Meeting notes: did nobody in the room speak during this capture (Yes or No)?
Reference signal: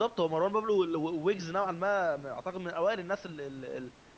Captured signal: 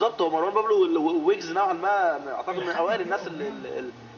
No